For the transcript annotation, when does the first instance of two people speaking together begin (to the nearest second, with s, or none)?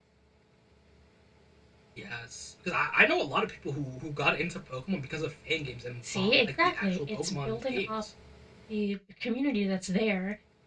6 s